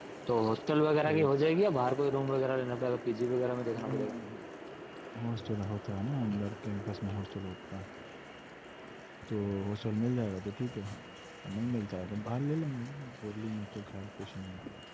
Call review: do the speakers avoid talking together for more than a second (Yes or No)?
Yes